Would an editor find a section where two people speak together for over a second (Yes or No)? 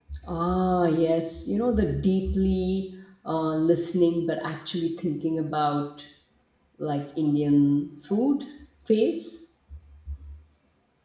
No